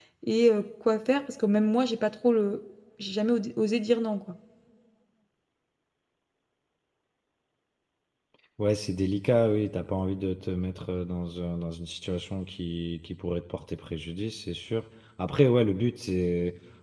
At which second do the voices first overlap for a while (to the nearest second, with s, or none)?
none